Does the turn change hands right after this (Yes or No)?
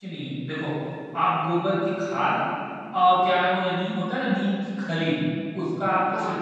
No